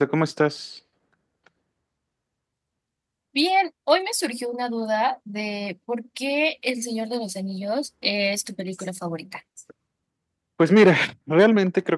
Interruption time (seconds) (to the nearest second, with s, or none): none